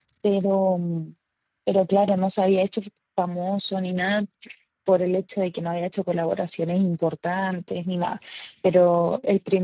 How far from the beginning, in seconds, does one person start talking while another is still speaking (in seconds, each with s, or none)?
none